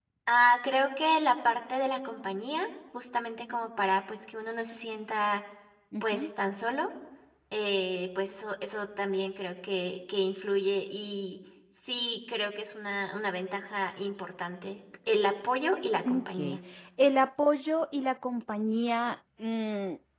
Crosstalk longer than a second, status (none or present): none